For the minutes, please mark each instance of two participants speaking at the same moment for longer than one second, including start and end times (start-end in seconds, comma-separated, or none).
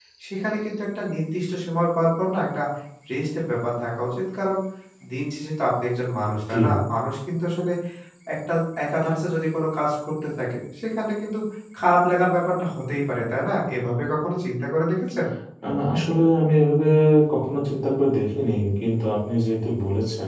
none